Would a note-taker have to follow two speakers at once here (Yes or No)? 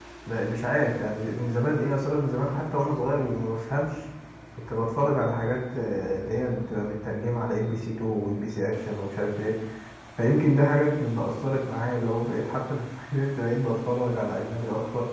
No